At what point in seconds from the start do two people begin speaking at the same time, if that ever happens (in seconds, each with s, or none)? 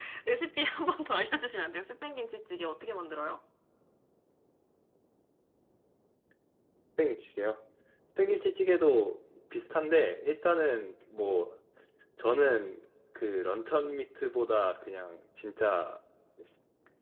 none